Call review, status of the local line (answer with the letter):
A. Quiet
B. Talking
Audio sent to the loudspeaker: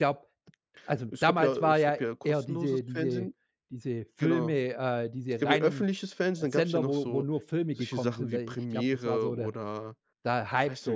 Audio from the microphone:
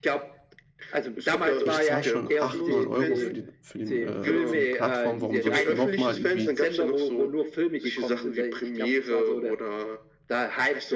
B